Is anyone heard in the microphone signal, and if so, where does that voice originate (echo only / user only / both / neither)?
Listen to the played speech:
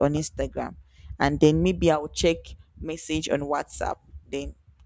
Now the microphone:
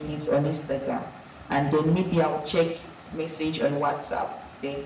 echo only